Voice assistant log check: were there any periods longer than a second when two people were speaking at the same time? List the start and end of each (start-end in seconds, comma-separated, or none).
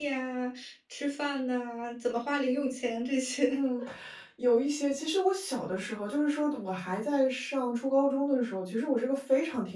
none